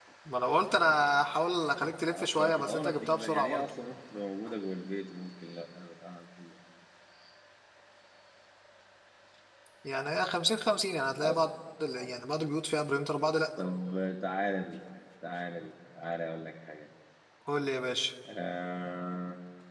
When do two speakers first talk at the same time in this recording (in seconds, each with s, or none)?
2.1 s